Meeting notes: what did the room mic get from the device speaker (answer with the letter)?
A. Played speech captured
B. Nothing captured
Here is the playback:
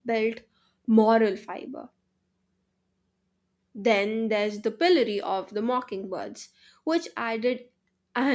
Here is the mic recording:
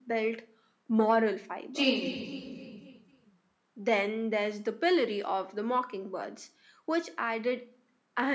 A